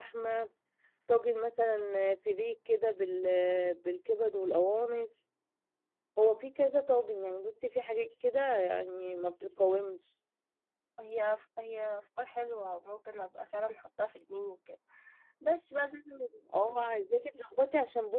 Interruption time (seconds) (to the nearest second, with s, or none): none